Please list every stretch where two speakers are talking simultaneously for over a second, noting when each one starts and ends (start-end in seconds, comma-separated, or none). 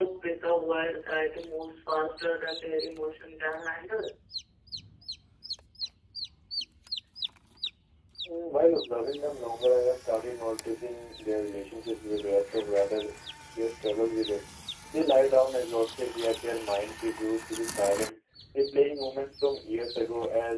none